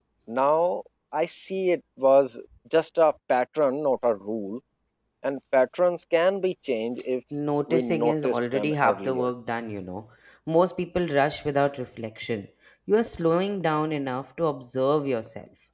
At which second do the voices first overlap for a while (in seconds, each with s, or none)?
7.7 s